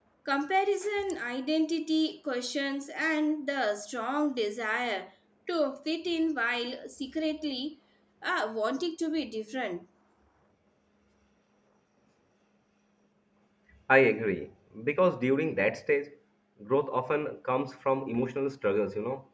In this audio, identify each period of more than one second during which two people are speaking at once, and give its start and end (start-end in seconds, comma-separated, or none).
none